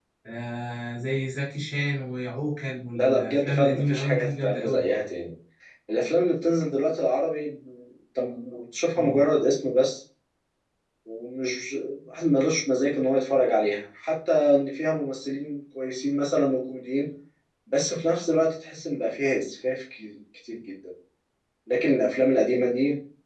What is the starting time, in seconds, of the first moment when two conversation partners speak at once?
3.0 s

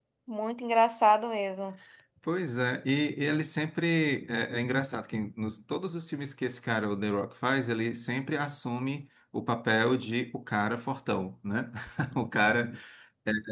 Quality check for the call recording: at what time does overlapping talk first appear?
none

